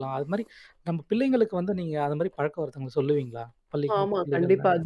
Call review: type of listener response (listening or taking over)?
taking over